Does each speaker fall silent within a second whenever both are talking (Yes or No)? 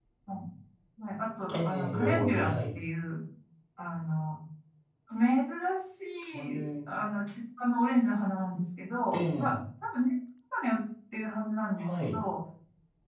No